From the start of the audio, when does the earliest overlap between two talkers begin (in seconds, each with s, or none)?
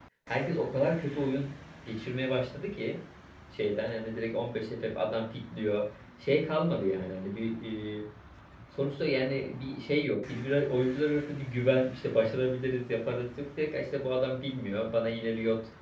none